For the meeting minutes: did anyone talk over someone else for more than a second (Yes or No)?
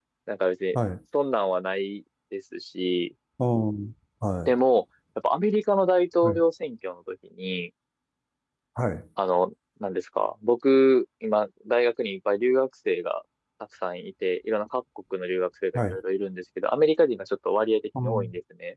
No